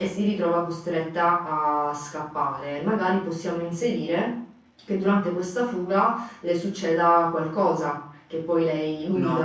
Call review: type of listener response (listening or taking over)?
taking over